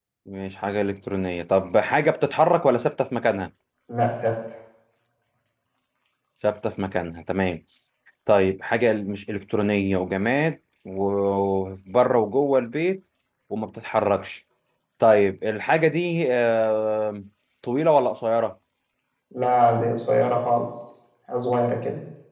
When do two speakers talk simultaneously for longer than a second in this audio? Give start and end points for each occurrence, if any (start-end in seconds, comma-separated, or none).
none